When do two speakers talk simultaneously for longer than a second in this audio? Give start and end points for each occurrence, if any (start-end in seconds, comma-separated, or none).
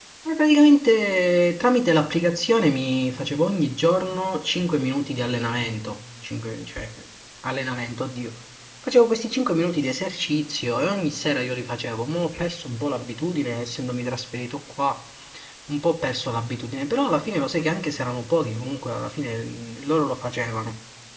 none